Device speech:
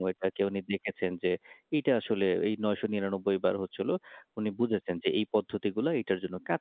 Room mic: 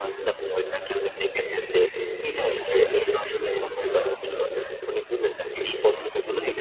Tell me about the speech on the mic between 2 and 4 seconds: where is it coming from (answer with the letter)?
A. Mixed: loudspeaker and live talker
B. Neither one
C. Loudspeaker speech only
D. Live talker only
C